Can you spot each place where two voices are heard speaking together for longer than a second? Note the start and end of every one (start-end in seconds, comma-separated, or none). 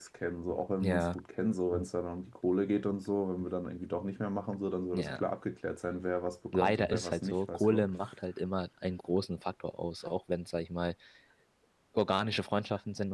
6.5-7.9